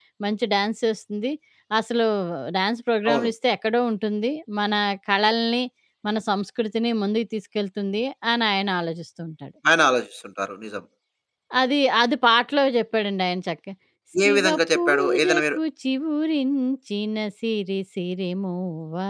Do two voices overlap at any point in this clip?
Yes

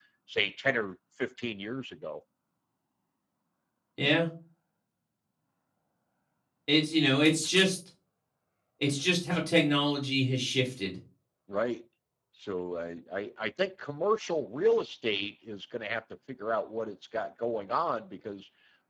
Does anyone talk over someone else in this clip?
No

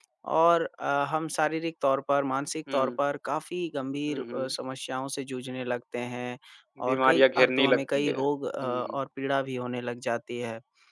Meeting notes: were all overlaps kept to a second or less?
No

